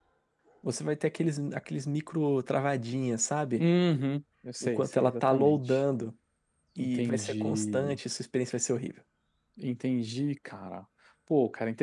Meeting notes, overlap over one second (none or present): present